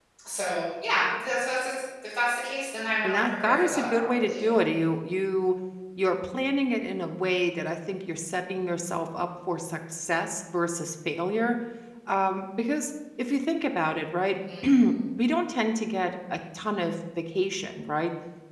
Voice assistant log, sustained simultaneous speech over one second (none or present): present